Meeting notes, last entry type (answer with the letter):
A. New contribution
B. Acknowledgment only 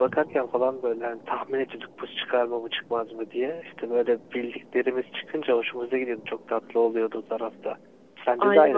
A